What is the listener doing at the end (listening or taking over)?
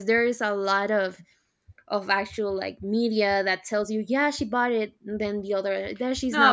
taking over